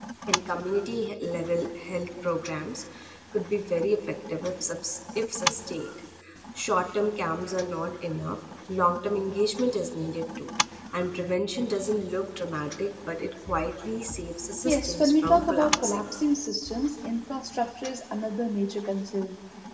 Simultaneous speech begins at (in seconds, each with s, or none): 14.6 s